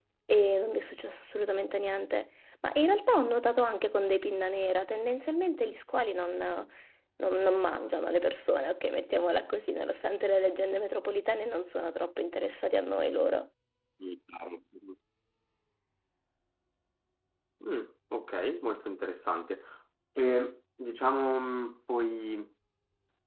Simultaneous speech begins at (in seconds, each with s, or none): none